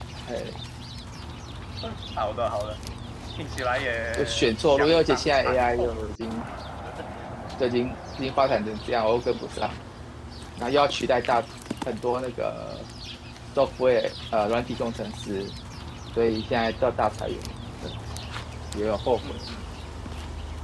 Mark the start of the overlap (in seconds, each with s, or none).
4.2 s